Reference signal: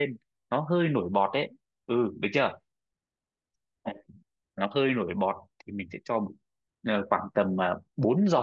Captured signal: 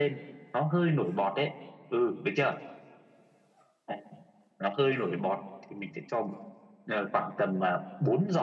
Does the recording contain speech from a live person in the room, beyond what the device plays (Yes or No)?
No